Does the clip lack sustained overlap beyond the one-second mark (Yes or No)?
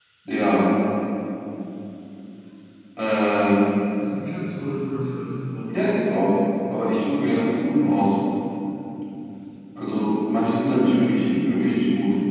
Yes